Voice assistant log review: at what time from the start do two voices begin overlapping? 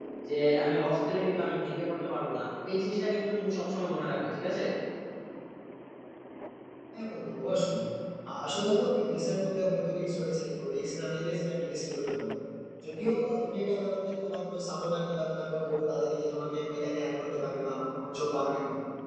none

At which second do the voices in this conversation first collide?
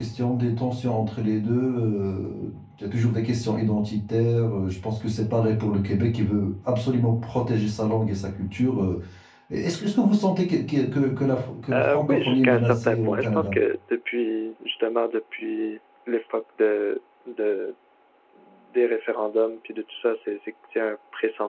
11.7 s

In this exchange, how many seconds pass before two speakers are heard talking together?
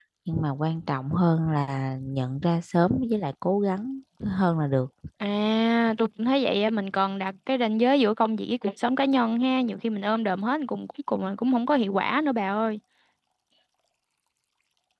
none

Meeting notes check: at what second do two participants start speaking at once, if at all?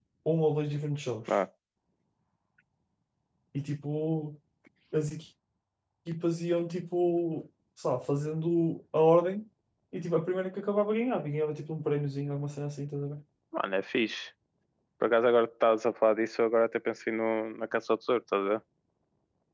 none

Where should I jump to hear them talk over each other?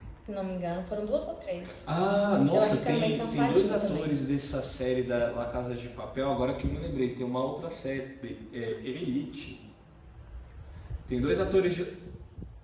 2.5 s

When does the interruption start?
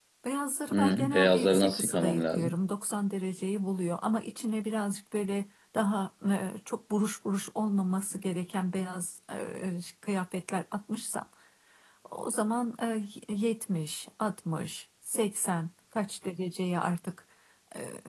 0.7 s

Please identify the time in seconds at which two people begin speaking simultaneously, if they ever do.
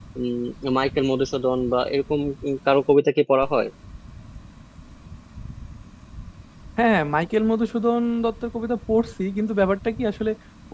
none

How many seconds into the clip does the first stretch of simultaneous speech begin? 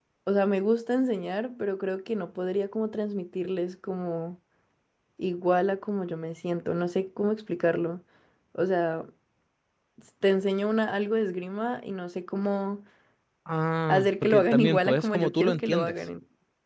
13.9 s

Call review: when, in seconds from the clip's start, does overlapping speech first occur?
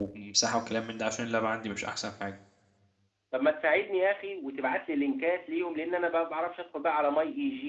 none

